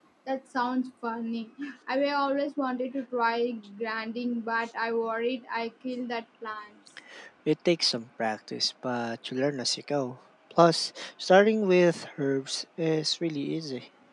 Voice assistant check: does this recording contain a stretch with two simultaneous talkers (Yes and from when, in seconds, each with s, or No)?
No